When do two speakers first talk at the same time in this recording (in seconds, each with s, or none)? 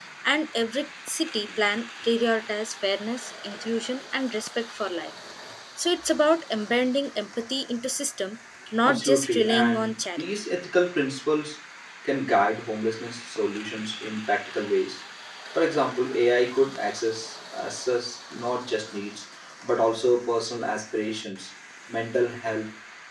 8.8 s